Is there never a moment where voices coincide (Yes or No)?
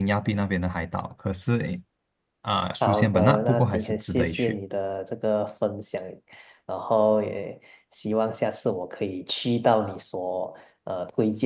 No